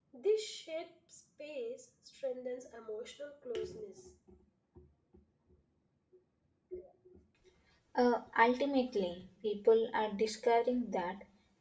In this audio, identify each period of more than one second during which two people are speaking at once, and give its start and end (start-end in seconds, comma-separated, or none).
none